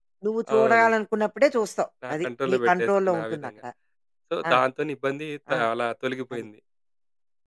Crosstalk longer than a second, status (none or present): present